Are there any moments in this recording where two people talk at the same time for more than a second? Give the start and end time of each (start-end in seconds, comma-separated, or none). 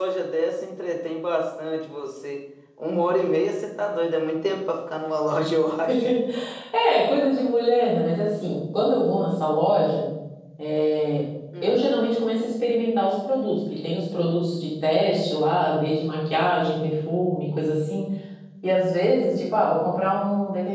none